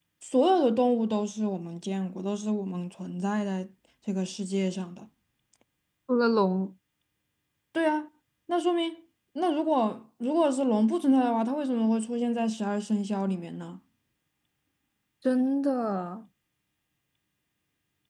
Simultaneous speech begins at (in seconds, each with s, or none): none